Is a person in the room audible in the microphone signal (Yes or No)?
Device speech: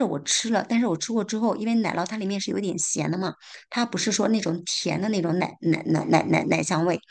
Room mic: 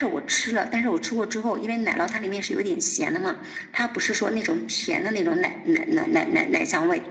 No